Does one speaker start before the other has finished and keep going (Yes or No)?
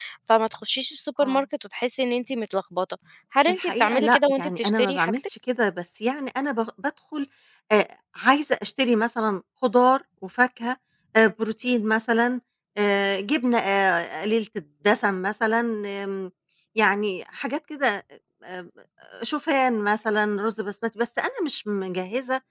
Yes